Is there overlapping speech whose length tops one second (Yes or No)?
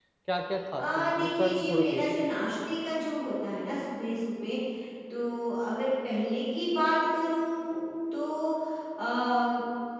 Yes